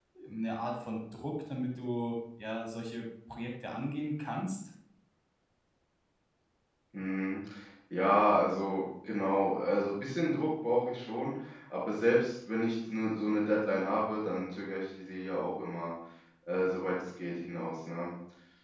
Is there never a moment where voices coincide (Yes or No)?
Yes